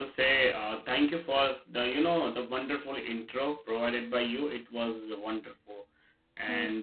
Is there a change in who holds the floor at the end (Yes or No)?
No